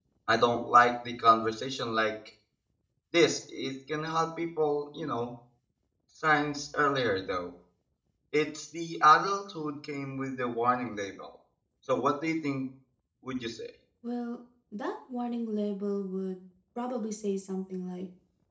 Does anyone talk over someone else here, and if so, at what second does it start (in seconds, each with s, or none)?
none